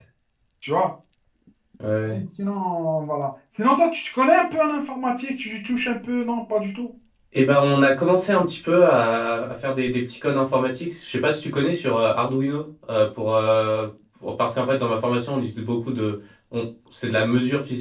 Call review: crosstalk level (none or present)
none